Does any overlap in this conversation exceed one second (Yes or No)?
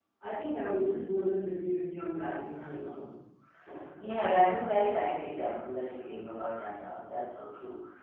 No